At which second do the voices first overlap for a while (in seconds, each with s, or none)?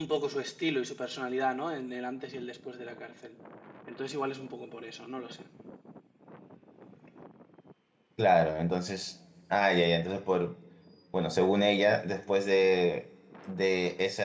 none